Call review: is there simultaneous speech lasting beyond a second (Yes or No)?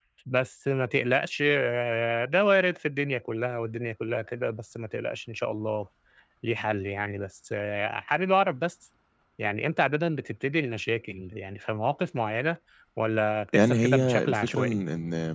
Yes